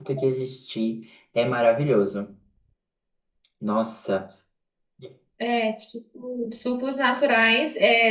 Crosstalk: none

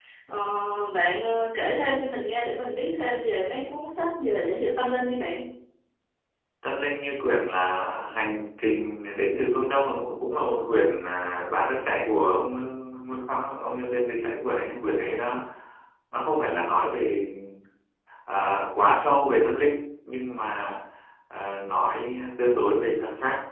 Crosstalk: none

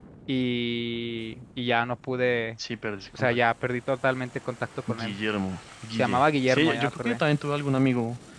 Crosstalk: present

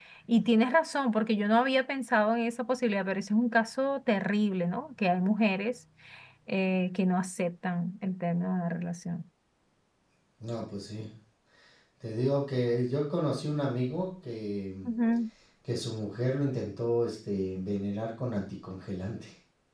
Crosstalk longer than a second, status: none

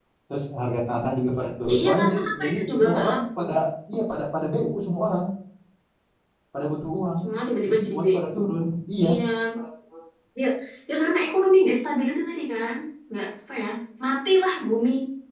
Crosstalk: present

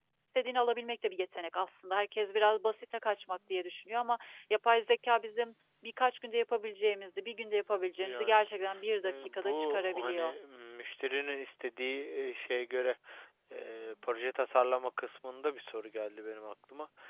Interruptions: present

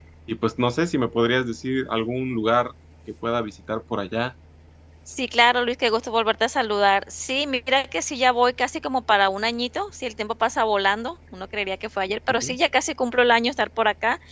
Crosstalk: none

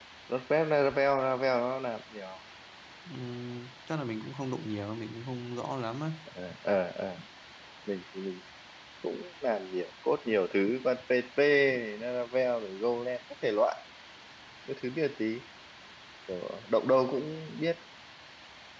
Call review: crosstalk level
none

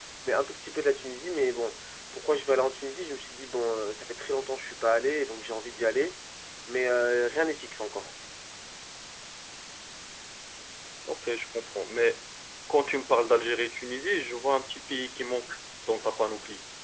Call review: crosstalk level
none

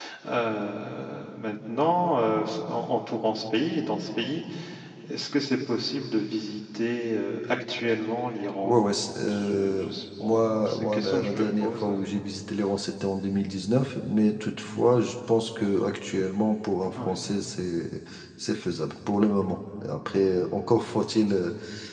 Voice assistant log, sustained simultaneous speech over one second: present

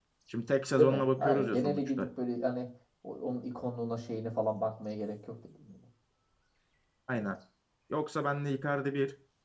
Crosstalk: present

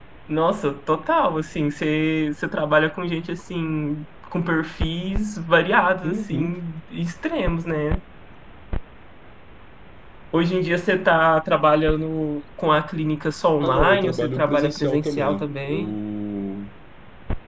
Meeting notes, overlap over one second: present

